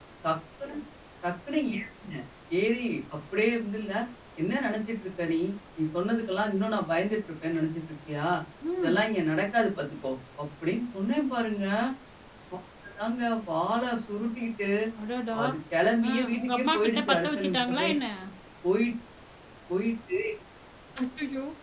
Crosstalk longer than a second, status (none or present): present